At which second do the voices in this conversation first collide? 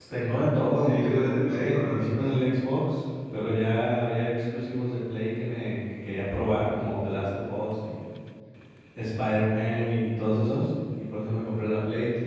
0.8 s

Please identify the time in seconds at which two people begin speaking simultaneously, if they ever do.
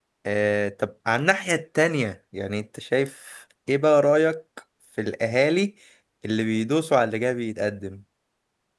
none

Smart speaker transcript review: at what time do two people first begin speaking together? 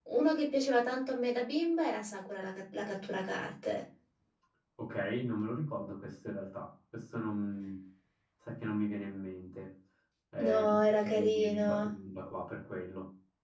10.5 s

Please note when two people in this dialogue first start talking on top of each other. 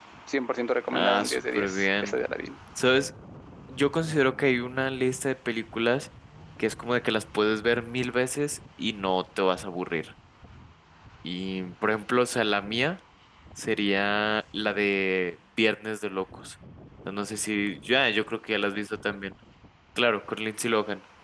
0.9 s

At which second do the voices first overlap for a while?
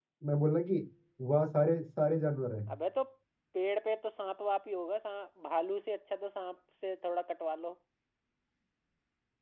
none

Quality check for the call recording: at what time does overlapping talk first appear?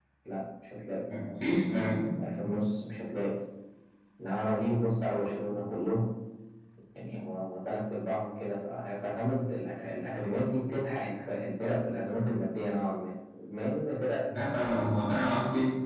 none

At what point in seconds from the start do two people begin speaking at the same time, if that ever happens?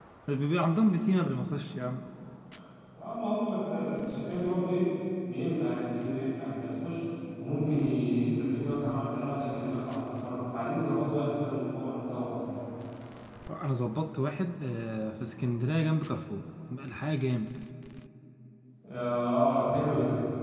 none

